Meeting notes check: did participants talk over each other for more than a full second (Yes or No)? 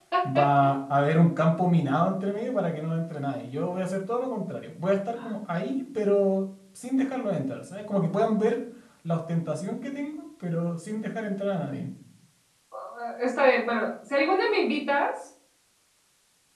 No